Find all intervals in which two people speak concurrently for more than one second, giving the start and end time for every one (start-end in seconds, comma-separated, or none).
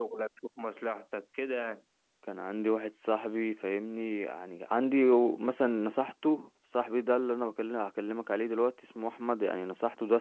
none